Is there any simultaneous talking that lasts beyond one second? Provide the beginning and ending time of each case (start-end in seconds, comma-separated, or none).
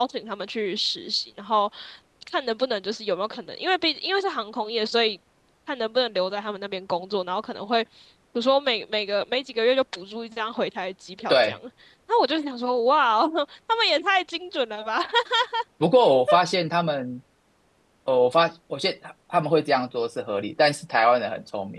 none